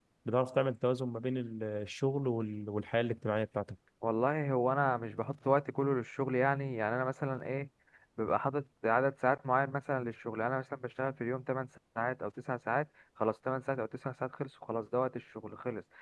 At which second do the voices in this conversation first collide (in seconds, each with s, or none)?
none